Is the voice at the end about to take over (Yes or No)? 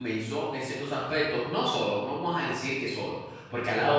No